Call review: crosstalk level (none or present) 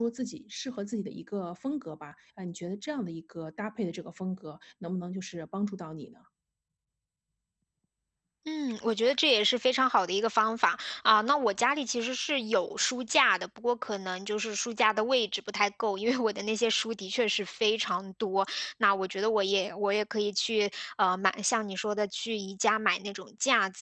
none